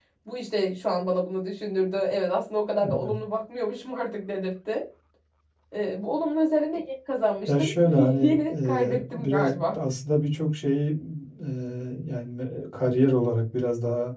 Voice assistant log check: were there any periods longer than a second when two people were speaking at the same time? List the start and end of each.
7.5-9.7

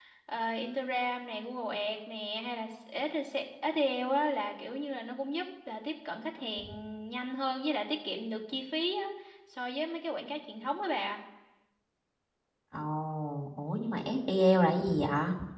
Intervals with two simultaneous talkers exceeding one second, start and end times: none

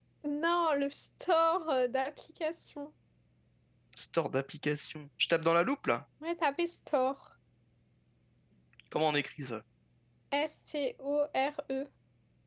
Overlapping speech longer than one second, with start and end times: none

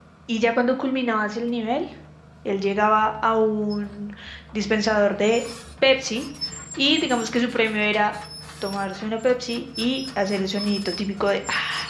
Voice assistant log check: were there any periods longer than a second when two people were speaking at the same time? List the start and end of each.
none

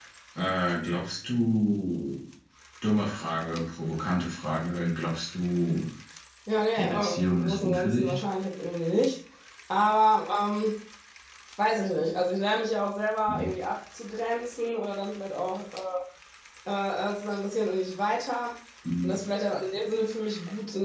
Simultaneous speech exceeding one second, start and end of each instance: 6.8-8.2

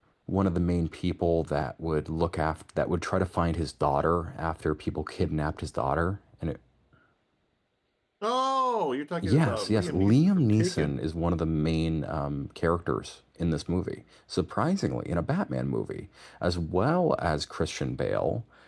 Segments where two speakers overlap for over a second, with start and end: 9.2-11.0

